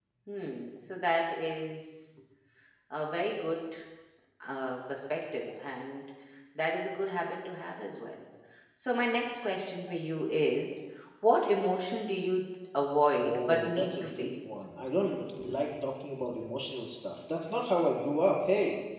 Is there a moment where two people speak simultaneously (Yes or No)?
Yes